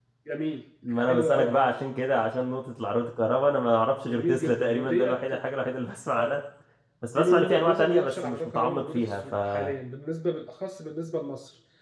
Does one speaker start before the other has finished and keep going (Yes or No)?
Yes